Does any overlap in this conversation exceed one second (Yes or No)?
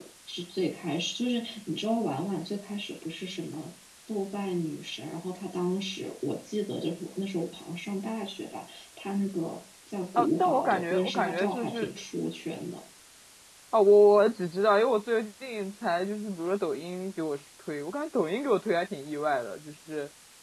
Yes